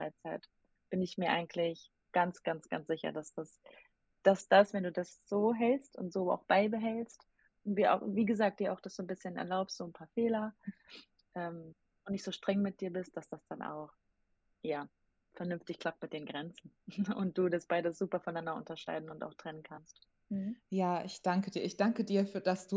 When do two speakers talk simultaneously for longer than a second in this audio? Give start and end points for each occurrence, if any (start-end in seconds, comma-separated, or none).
none